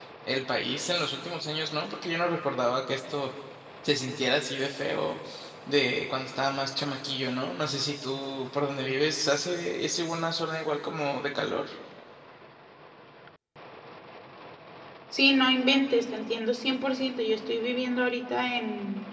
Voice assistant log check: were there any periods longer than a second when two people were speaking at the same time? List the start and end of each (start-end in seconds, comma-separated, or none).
none